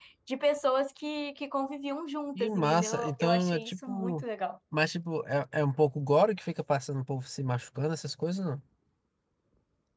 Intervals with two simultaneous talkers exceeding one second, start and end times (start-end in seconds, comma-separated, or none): 2.4-4.2